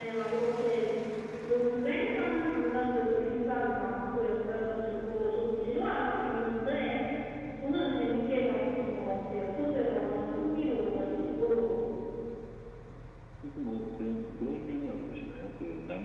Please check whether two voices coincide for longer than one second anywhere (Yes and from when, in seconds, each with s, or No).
No